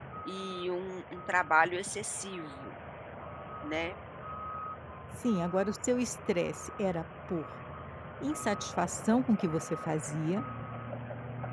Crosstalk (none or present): none